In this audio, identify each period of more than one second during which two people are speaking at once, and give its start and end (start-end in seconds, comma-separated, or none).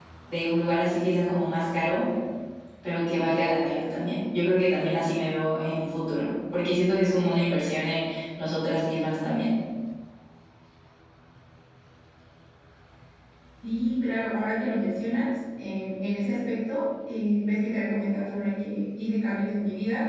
none